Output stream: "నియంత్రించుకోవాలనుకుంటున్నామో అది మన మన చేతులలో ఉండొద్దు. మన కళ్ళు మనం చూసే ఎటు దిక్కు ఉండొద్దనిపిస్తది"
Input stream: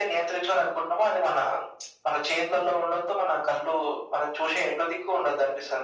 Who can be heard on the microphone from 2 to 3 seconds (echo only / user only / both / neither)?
echo only